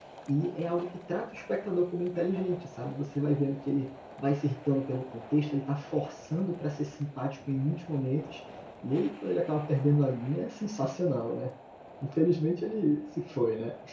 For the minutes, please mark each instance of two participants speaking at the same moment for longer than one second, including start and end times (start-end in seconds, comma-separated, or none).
none